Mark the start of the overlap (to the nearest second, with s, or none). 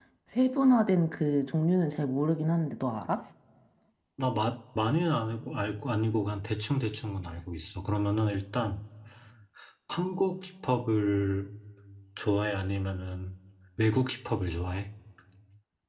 none